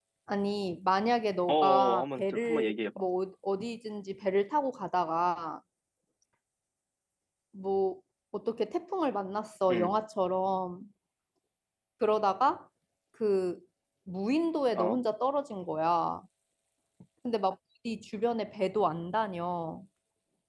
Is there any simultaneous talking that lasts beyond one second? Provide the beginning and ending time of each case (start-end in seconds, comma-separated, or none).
1.5-3.0